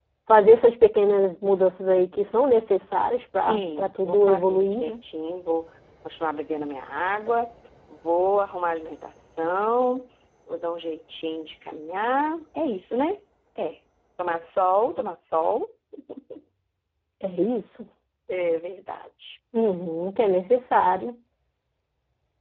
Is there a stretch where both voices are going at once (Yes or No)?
Yes